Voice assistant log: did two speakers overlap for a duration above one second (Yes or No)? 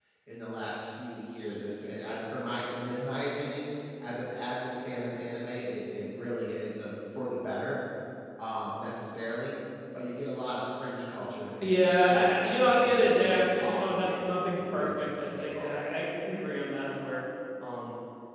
Yes